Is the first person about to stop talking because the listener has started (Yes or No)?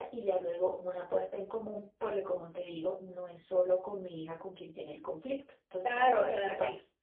Yes